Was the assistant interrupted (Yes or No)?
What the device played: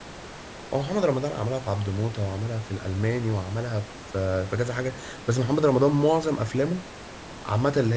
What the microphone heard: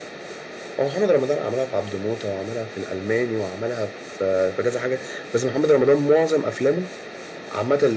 No